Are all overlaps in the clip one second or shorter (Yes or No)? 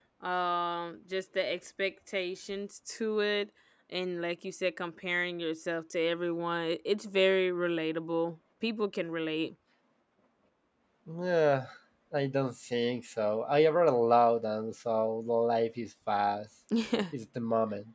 Yes